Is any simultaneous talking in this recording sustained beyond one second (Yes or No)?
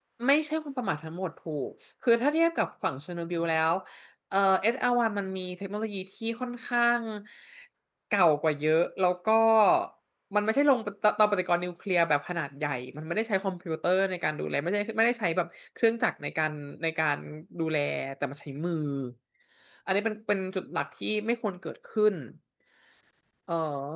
No